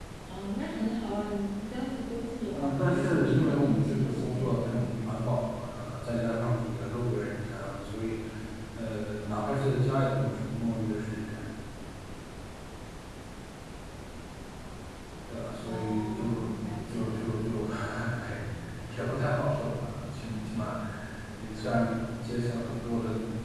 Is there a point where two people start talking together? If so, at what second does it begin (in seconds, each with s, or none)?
2.5 s